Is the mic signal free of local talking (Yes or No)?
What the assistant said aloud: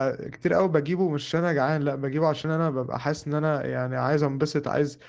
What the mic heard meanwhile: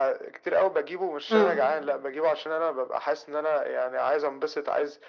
No